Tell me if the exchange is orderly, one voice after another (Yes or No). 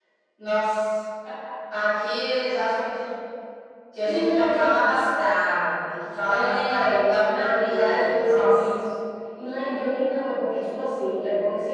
No